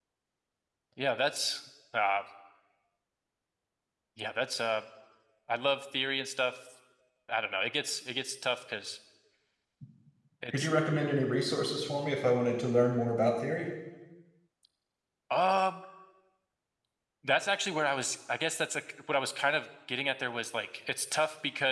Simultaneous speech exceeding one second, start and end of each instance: none

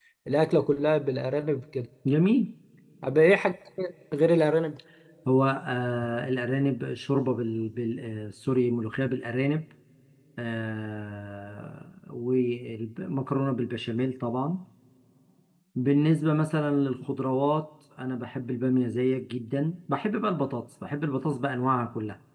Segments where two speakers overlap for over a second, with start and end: none

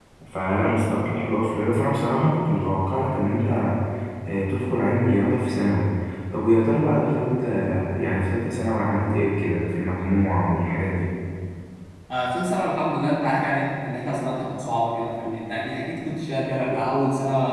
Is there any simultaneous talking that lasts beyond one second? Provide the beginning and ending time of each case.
none

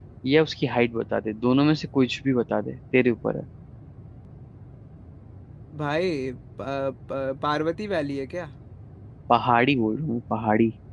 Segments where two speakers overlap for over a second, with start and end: none

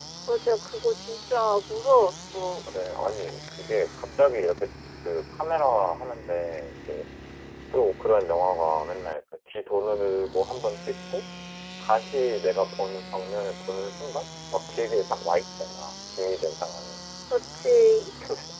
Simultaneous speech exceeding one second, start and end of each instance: none

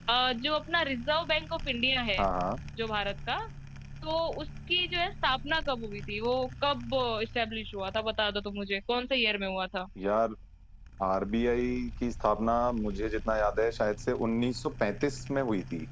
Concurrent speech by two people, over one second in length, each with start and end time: none

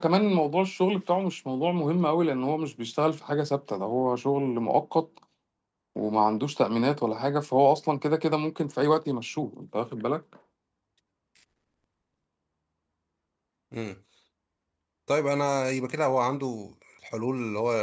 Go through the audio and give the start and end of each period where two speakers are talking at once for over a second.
none

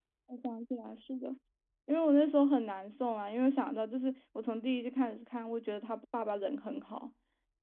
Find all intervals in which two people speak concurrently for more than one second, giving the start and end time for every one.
none

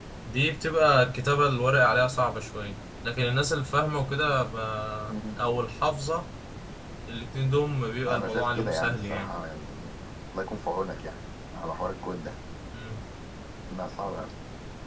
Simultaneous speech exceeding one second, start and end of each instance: 8.1-9.3

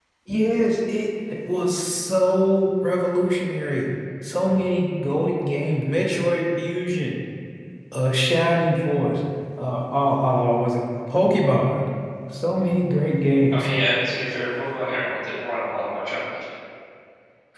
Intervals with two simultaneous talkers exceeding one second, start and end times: none

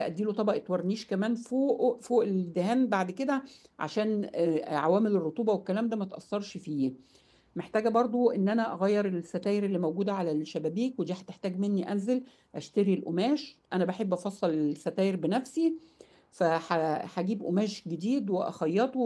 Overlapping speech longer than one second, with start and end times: none

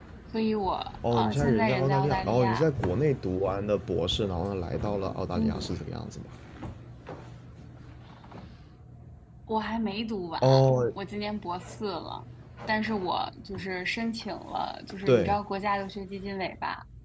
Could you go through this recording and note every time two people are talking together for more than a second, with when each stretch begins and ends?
1.1-2.7

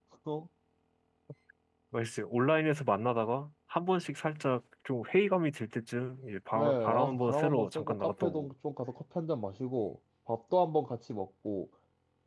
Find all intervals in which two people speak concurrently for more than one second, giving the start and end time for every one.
6.5-8.5

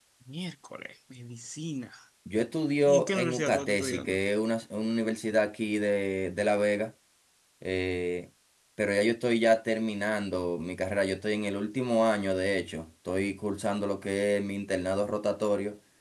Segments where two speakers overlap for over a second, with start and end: 2.9-4.2

